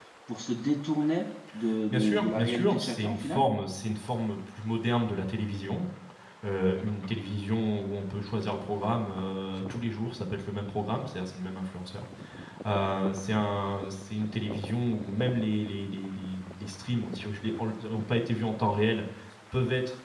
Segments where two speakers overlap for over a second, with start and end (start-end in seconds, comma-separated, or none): 1.9-3.4